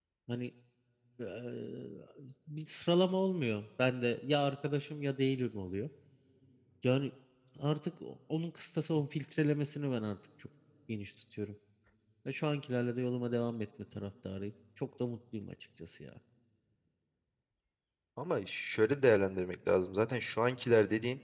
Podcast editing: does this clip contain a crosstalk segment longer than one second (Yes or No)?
No